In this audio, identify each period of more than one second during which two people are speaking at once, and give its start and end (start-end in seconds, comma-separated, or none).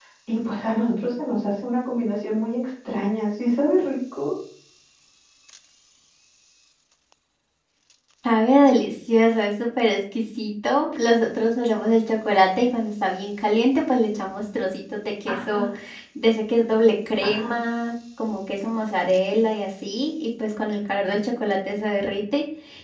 none